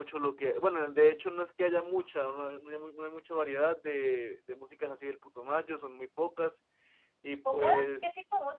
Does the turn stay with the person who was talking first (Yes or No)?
No